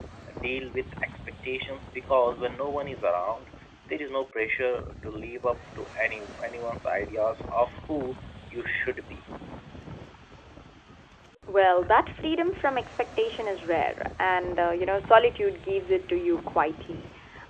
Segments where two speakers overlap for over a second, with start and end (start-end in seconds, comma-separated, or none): none